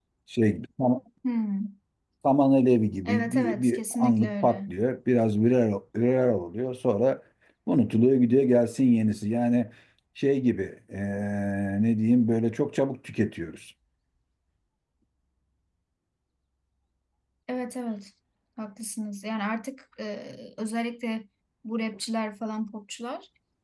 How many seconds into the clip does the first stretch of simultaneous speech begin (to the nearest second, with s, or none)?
3 s